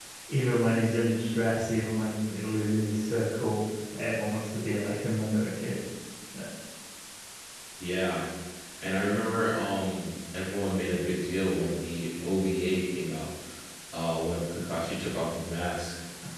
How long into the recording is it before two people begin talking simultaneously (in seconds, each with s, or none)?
none